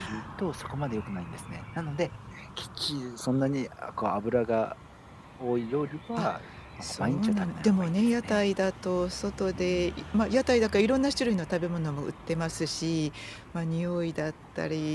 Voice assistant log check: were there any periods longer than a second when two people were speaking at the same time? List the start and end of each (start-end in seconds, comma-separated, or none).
6.8-8.5